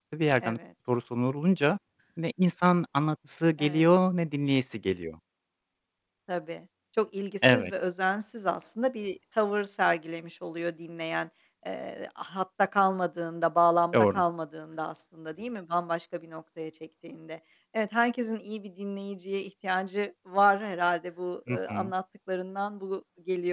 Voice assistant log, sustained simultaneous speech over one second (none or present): none